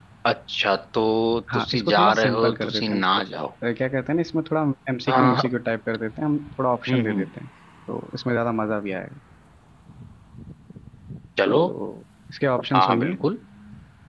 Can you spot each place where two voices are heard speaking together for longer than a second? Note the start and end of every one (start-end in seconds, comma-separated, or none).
1.5-3.0